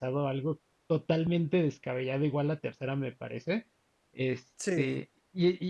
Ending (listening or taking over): listening